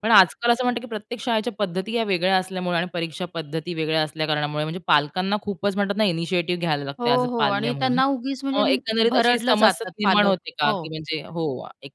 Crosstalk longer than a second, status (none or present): present